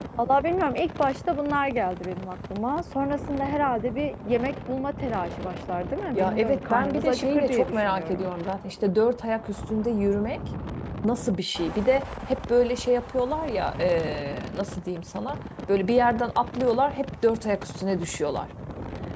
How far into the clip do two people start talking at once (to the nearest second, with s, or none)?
6 s